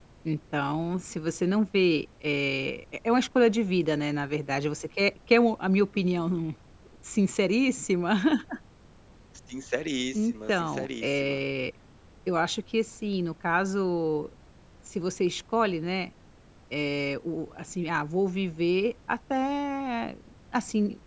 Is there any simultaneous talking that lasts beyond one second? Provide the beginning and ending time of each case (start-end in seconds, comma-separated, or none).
10.1-11.4